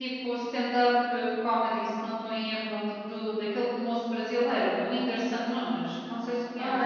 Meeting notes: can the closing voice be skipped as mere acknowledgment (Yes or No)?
No